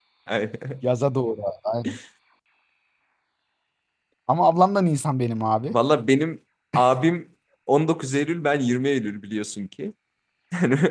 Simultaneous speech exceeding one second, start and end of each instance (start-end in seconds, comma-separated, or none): none